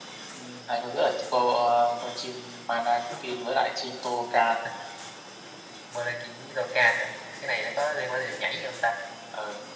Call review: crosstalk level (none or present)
none